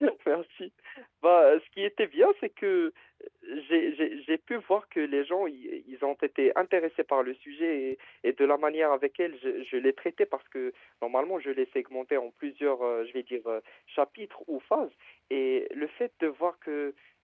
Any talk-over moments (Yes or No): No